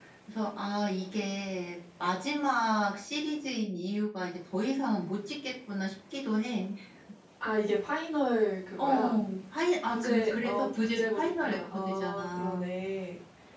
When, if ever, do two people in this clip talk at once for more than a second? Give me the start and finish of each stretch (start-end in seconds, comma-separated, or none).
9.9-12.7